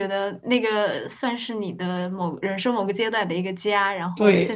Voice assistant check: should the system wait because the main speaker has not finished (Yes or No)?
No